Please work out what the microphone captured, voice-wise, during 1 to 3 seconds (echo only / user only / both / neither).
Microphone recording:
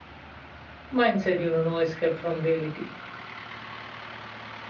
user only